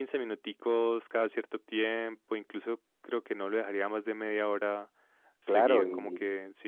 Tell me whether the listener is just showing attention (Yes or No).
No